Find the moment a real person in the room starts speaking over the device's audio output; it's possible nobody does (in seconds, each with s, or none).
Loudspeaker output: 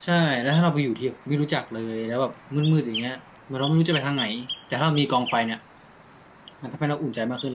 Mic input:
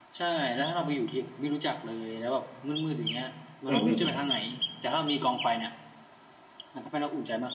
3.7 s